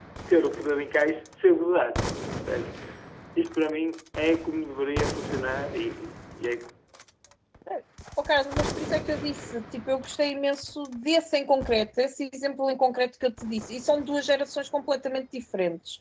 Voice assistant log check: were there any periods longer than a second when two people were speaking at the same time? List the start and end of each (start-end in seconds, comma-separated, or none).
none